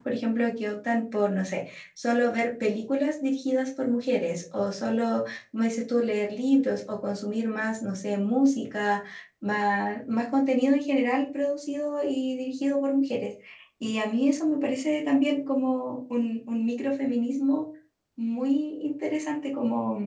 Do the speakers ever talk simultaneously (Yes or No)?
No